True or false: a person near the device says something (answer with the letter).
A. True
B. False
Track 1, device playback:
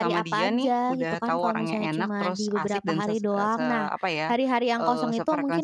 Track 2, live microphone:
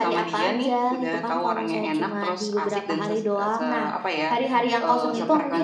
A